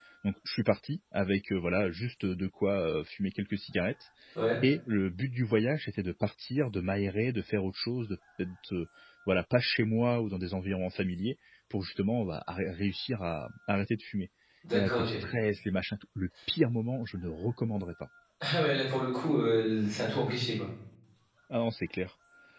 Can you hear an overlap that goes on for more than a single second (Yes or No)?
No